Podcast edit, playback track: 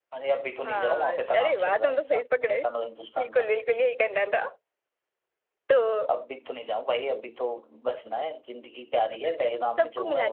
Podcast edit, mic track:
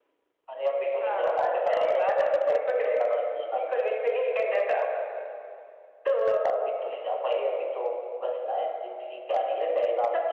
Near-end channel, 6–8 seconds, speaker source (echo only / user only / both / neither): echo only